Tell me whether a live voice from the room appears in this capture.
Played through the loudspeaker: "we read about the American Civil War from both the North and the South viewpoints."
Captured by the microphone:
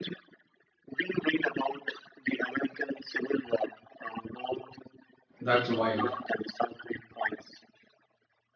Yes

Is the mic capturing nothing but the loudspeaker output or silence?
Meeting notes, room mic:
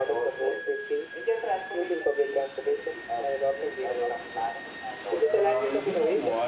No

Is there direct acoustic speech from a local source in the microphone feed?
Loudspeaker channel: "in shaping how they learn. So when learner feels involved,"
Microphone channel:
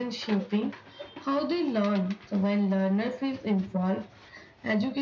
No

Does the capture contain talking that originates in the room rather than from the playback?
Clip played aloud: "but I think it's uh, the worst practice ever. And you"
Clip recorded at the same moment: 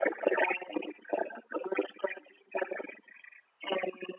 No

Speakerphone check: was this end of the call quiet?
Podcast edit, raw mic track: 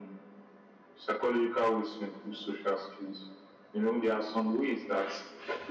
Yes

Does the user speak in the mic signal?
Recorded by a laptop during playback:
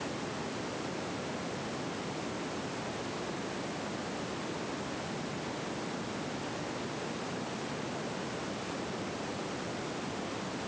No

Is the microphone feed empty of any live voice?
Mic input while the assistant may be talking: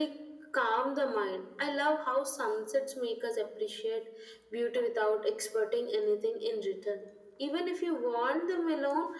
Yes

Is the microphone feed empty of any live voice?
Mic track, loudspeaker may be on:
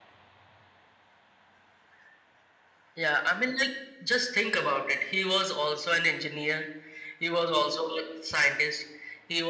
Yes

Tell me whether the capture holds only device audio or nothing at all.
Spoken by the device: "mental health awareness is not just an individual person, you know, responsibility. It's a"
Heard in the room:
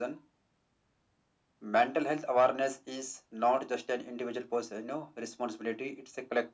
Yes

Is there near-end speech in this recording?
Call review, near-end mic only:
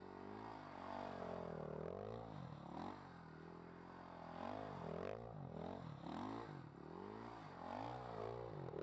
No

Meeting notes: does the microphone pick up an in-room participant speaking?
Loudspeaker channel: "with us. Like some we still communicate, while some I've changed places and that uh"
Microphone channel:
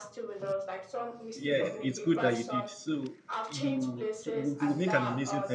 Yes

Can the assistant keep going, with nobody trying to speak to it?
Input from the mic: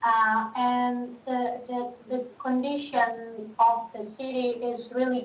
Yes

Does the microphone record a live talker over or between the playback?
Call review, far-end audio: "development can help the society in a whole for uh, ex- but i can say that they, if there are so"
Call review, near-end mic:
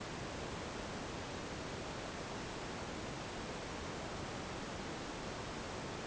No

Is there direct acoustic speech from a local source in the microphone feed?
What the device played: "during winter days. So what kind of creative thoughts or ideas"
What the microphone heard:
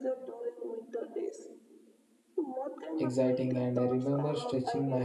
Yes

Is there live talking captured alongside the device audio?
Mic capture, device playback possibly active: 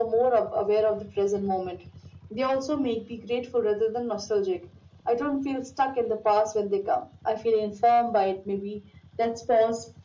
No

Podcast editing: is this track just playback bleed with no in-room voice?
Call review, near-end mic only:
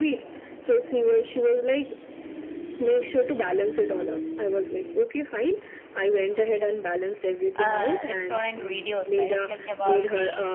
No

